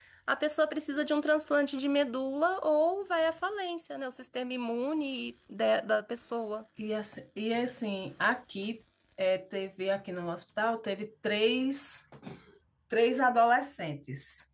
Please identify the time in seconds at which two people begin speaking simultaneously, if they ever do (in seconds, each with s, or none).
none